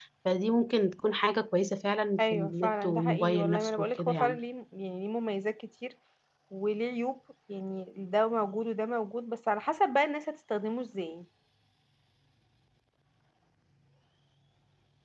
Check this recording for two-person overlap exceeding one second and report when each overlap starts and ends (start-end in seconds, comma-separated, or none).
2.2-4.4